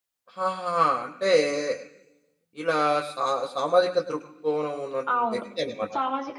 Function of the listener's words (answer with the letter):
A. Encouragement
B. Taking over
B